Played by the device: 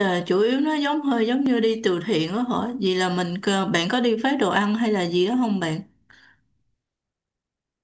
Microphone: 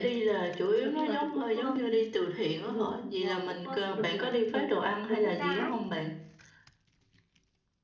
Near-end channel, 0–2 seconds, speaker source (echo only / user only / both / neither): both